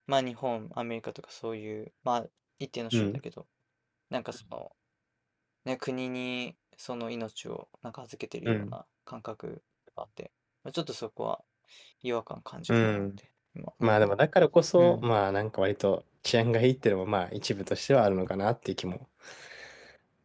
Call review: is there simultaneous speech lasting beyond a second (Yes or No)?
No